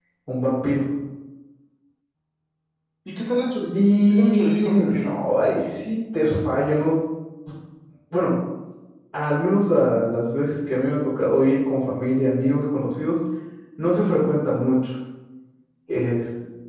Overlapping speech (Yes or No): Yes